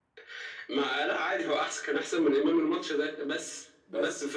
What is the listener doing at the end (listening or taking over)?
listening